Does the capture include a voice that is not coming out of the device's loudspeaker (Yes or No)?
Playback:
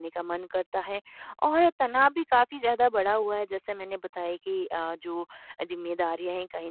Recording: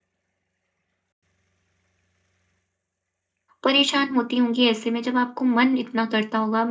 Yes